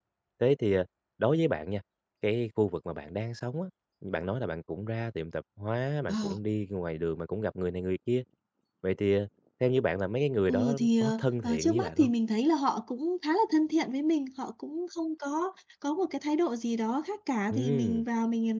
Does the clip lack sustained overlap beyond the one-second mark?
No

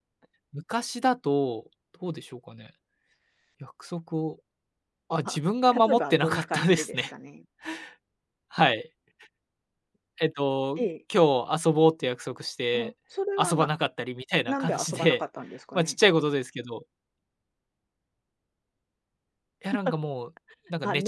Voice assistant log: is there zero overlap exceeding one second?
No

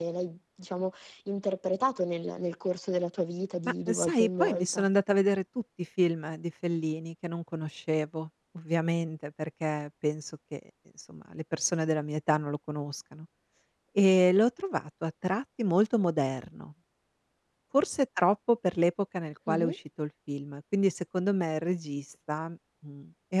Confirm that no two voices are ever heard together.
No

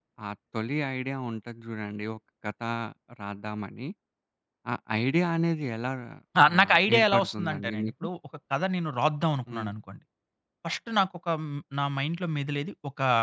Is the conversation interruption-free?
No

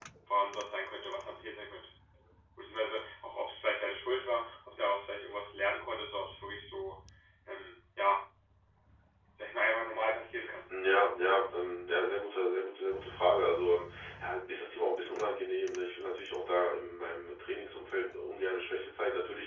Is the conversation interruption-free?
Yes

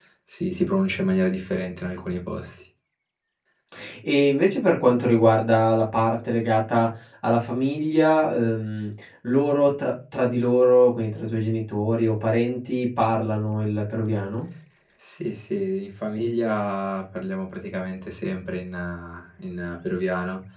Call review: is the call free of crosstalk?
Yes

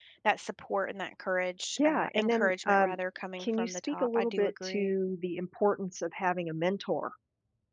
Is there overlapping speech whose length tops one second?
Yes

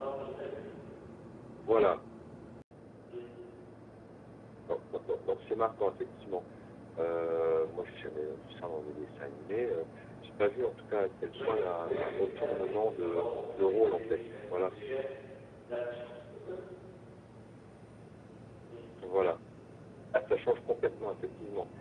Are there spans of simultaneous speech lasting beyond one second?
Yes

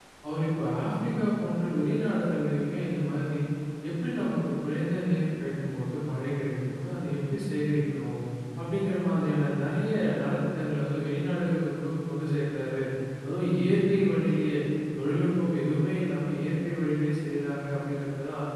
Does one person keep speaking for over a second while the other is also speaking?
No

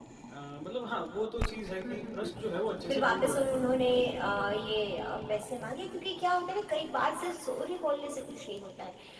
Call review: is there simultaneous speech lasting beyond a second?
No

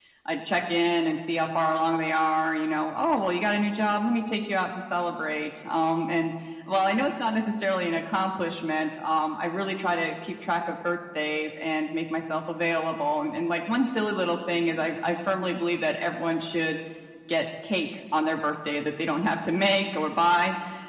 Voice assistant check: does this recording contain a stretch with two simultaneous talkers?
No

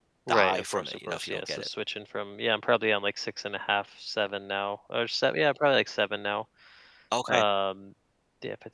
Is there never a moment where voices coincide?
No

